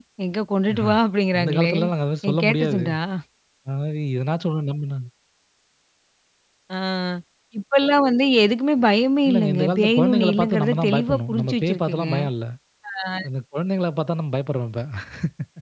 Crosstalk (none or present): present